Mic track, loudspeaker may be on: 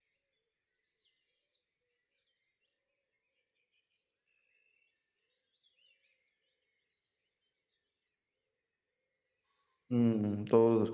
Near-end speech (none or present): present